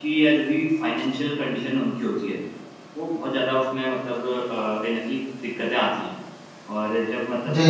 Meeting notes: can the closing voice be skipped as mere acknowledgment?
Yes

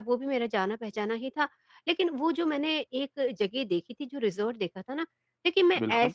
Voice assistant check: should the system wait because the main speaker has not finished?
Yes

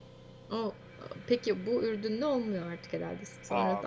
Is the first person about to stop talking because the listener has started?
Yes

